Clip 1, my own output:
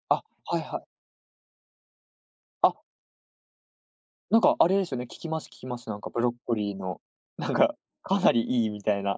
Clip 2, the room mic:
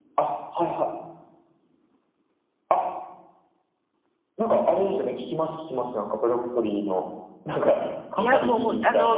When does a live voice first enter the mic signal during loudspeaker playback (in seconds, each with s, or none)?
8.2 s